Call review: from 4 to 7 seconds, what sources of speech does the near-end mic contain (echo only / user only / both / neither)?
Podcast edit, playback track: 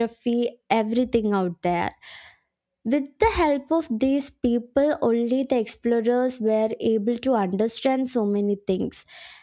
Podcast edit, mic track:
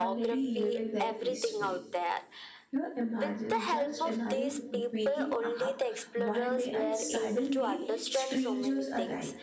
both